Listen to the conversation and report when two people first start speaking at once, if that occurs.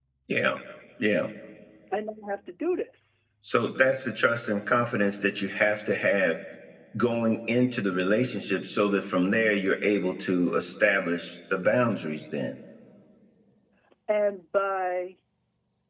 none

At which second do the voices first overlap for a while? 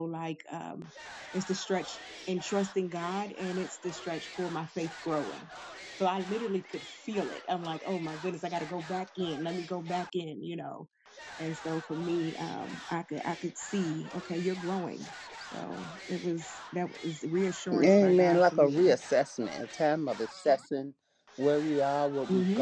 17.7 s

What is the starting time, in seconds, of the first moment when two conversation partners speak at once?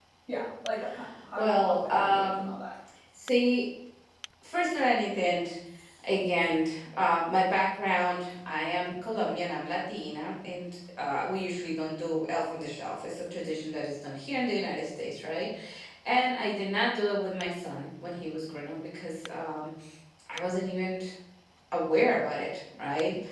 1.4 s

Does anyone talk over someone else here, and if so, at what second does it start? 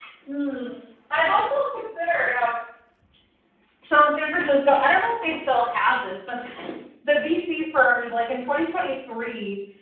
none

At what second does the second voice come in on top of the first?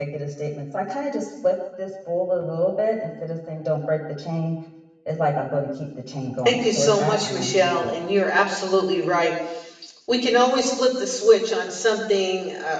6.5 s

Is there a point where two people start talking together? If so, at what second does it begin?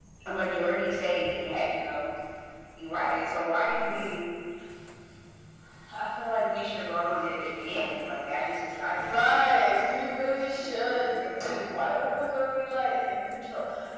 8.9 s

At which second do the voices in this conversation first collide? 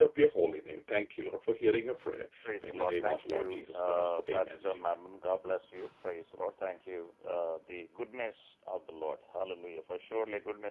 2.5 s

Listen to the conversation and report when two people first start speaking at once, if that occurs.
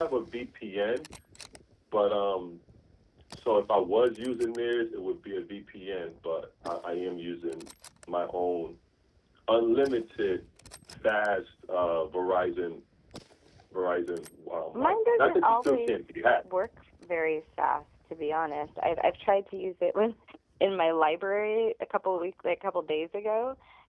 14.7 s

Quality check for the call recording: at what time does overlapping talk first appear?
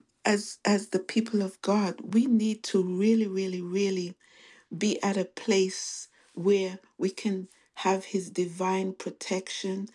none

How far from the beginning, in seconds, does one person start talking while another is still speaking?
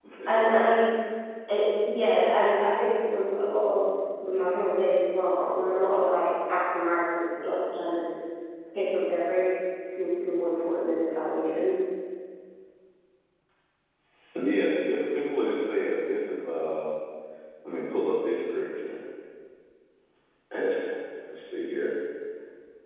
none

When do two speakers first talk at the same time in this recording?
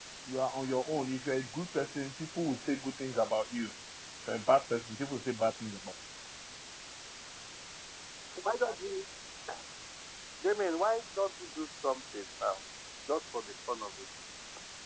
none

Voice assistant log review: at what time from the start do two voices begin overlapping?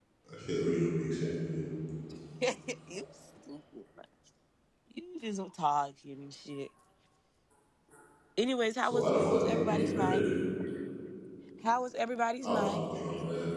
8.8 s

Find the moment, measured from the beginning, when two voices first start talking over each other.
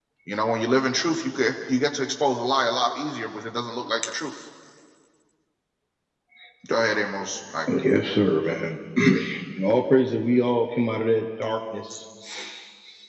none

